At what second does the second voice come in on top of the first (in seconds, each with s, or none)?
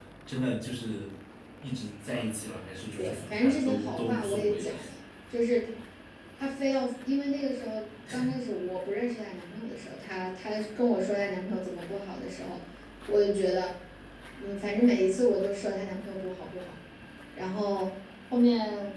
3.0 s